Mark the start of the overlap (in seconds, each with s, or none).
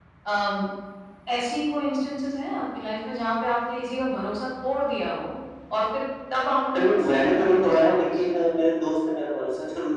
6.7 s